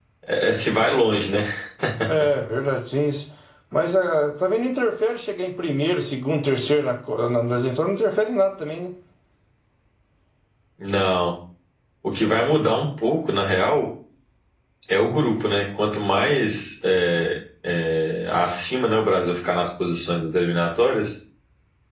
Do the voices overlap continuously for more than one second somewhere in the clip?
No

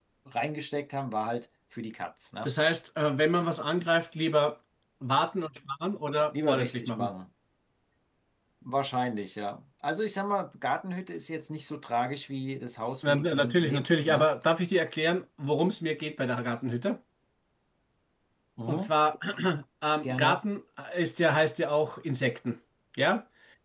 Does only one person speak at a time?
No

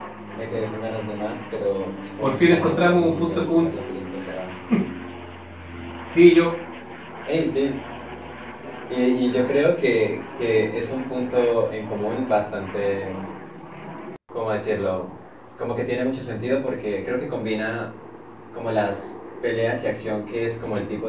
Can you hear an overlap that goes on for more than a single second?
Yes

